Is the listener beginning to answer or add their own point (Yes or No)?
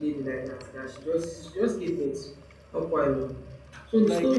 No